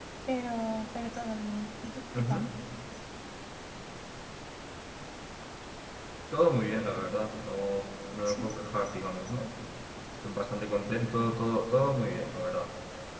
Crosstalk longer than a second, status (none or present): none